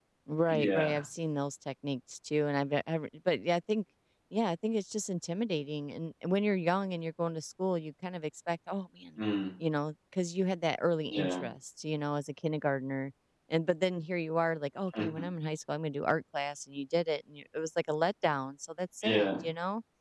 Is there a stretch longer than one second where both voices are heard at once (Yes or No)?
No